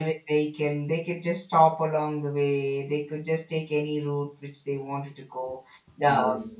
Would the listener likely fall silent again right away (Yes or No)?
Yes